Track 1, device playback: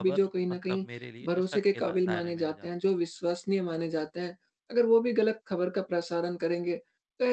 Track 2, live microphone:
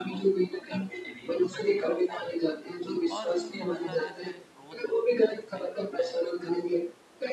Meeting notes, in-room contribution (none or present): present